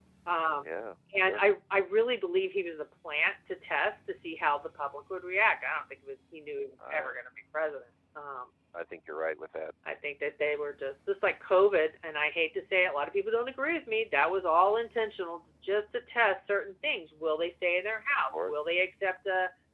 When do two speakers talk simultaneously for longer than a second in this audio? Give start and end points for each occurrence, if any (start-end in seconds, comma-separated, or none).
none